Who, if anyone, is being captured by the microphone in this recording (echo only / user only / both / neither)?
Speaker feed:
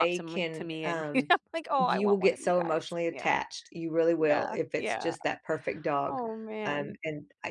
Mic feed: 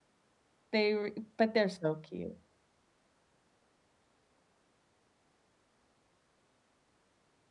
user only